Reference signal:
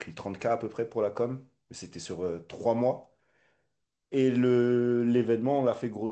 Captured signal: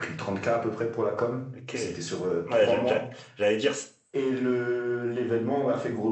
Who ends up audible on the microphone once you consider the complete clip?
both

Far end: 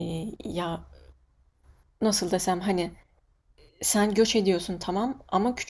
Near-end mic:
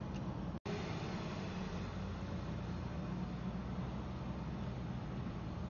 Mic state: neither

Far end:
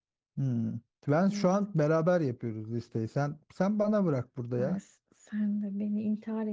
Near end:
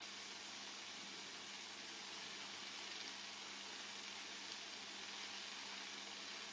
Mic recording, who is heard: neither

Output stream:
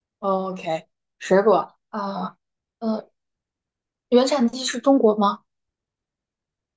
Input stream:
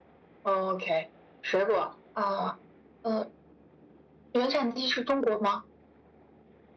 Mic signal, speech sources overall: echo only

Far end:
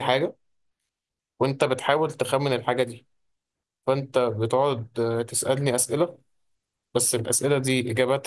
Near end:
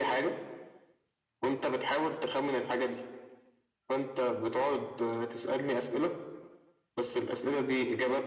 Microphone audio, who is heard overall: echo only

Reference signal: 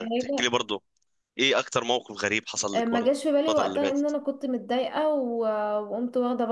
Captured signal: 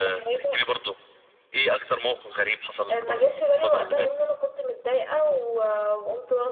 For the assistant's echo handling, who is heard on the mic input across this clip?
echo only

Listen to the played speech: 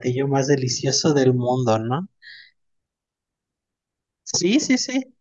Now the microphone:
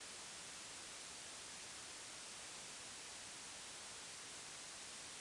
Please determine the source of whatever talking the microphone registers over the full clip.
neither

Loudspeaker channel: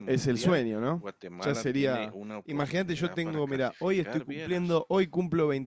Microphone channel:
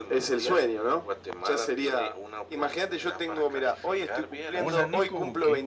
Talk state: both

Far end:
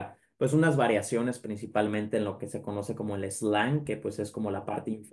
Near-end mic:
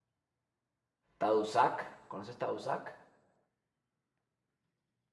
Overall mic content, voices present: user only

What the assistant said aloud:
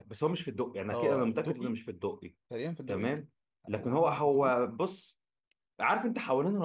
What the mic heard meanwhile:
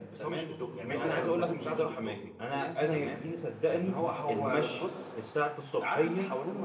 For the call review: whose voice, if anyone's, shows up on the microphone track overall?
both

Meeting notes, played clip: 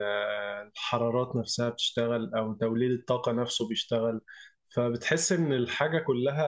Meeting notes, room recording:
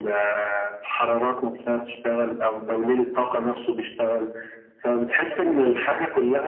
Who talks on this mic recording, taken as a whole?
both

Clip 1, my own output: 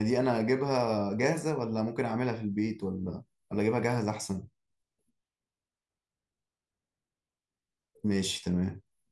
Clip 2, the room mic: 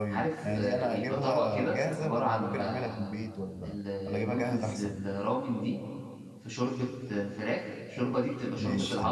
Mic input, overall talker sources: both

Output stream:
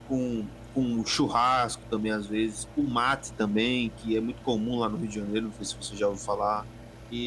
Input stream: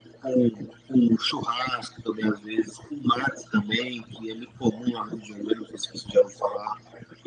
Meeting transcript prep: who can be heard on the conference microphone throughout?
echo only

